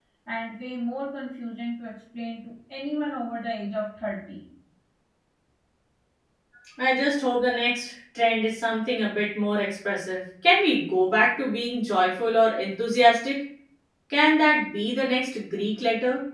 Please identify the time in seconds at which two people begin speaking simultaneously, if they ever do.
none

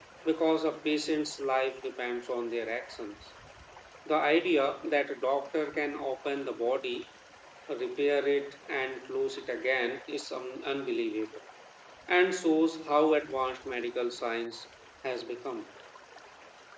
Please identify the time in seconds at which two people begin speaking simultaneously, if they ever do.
none

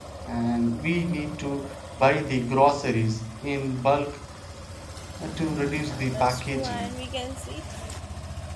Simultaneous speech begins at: 5.8 s

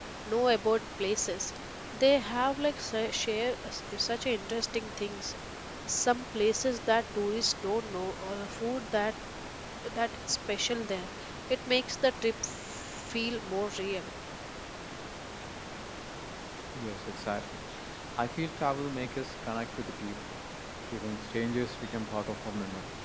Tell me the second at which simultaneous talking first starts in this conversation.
none

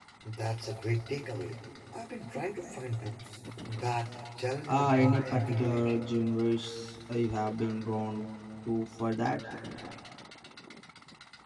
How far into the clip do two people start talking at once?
4.7 s

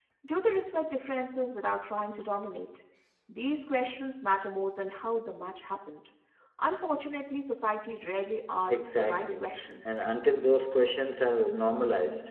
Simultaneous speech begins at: 8.7 s

